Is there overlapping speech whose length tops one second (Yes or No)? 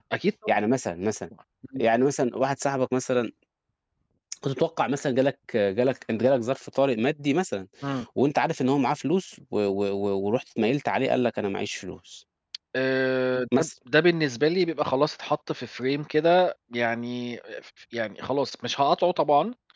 No